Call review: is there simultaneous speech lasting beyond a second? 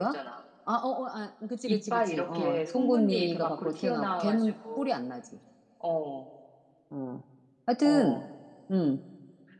Yes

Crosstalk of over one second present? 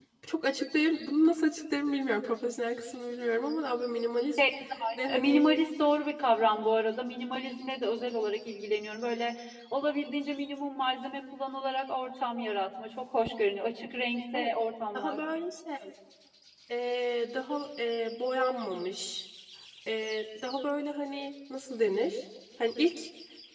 No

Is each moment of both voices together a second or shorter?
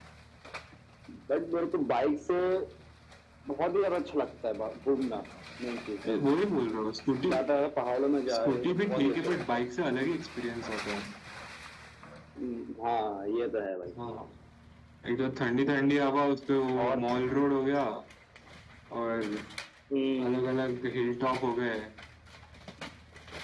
No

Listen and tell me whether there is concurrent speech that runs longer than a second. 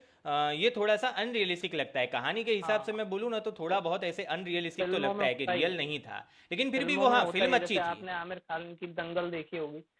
Yes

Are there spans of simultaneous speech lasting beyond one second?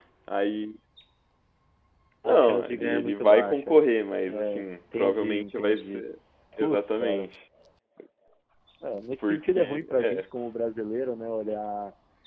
Yes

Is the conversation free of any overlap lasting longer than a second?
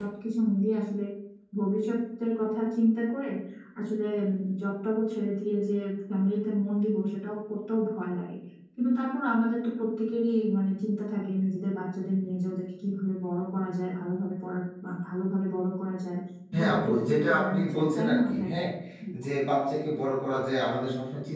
No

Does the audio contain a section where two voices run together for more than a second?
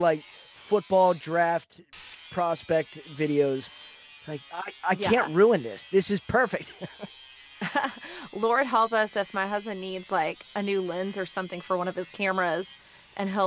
No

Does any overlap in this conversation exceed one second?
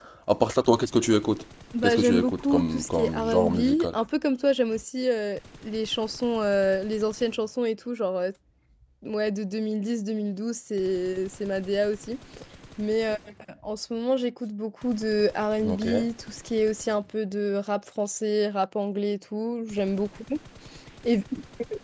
Yes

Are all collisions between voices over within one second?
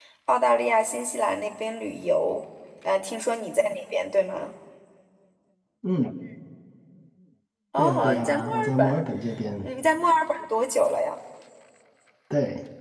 No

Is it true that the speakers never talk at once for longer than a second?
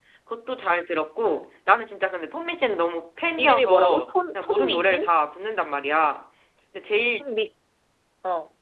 No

